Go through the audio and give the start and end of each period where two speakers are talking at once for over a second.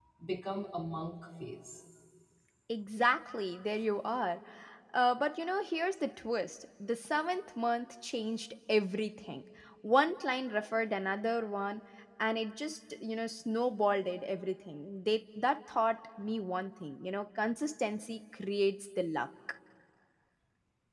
none

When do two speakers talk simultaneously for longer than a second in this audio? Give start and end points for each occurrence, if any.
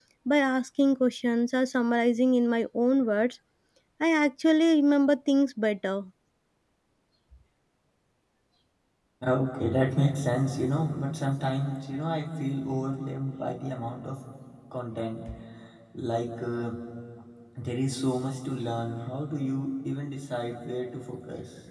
none

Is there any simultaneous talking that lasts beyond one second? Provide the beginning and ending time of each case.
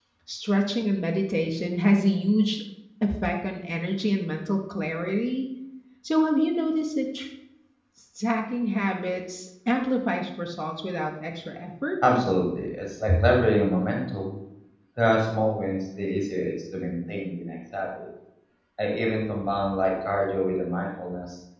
none

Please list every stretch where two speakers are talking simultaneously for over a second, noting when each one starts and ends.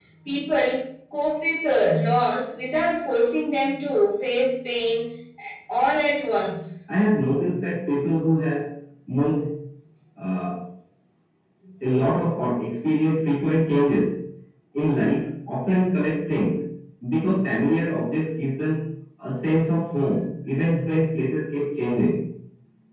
none

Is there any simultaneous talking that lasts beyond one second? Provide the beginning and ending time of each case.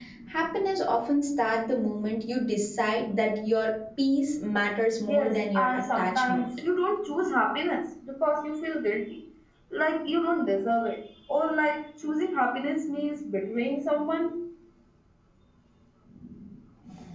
5.1-6.4

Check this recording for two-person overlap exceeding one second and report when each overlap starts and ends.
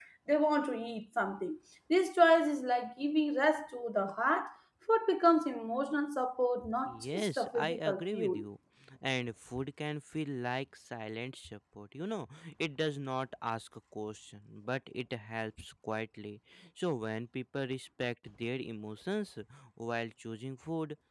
6.9-8.4

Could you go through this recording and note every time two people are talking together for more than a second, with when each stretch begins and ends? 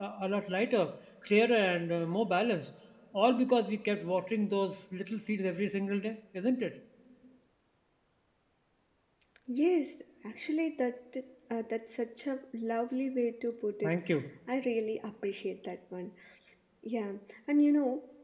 none

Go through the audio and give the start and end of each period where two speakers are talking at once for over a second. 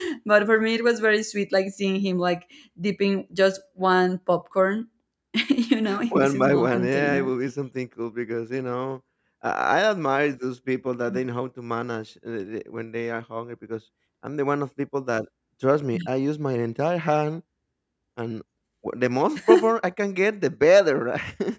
6.1-7.3

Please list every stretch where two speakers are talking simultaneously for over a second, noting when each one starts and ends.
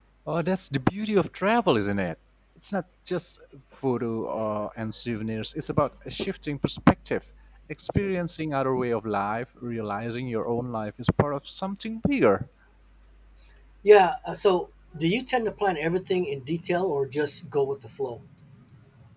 none

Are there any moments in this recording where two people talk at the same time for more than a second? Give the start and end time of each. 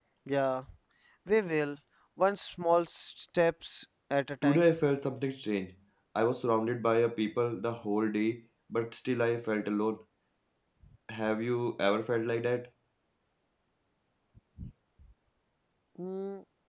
none

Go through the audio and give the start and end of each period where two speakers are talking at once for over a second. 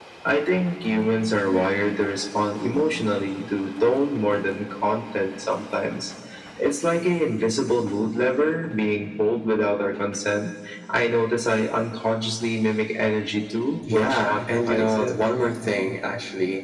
13.9-15.2

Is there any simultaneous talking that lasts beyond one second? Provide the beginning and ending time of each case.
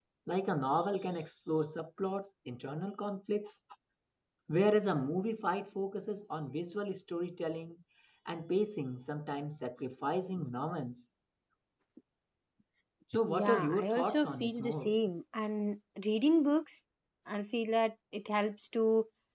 13.3-15.0

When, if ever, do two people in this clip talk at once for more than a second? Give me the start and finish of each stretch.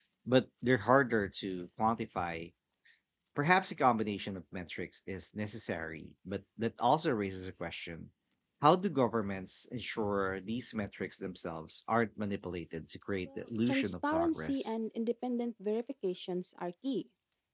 13.2-14.7

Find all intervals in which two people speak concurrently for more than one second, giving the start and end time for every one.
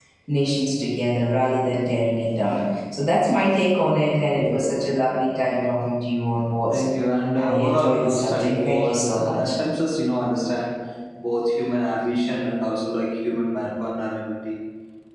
7.4-9.6

